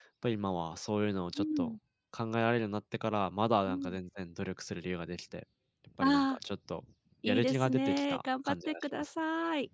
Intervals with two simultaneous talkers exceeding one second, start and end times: 7.3-9.1

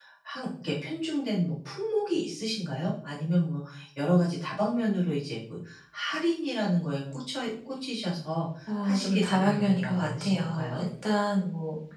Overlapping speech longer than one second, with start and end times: 8.8-10.9

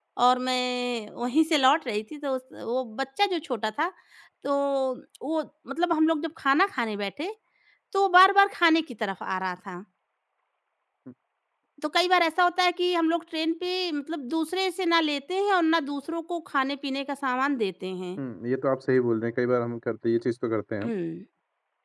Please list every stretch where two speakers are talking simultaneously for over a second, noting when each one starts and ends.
none

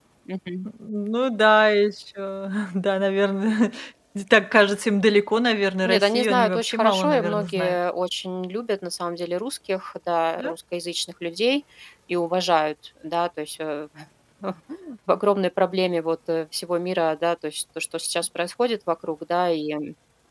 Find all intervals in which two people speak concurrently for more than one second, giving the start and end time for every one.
5.8-7.8

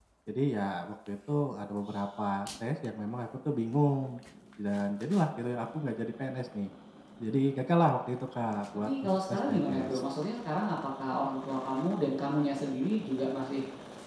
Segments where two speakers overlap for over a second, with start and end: 8.7-10.0

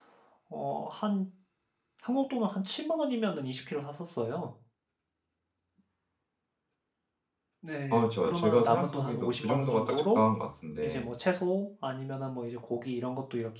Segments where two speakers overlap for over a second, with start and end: 7.9-10.2

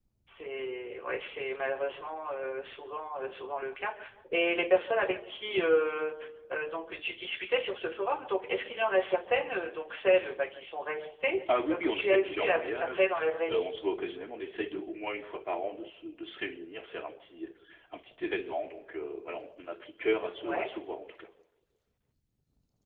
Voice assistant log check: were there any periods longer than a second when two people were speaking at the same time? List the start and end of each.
11.7-13.1

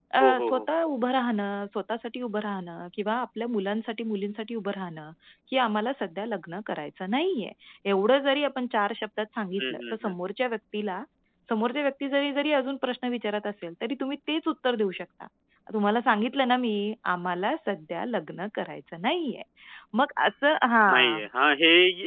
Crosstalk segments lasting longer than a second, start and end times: none

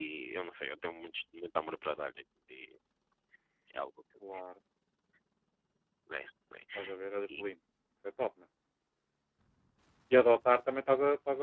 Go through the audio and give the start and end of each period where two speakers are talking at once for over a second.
none

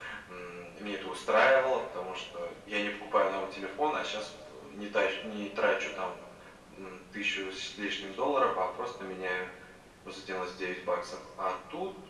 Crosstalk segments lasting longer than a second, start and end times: none

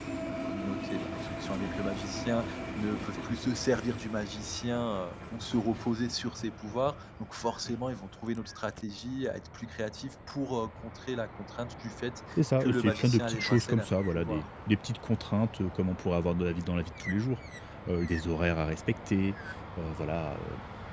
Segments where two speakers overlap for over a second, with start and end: 12.6-14.5

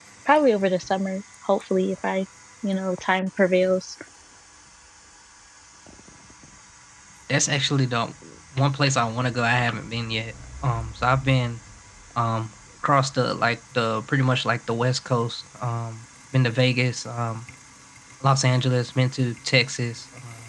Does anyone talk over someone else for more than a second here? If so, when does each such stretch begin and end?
none

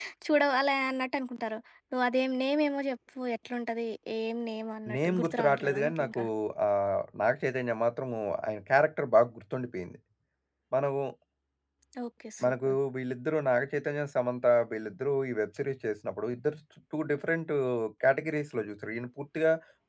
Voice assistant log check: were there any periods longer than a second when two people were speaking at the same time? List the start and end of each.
4.9-6.2

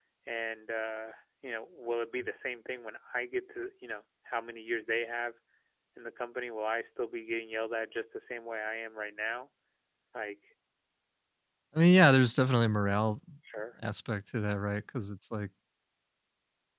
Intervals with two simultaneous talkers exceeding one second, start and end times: none

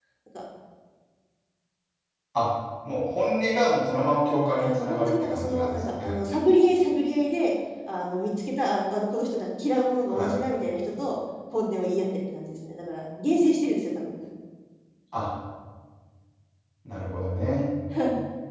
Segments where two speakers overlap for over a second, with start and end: 4.6-6.1

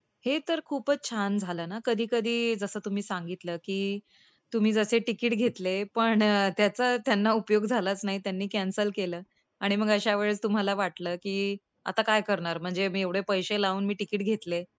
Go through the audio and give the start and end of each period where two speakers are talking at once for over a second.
none

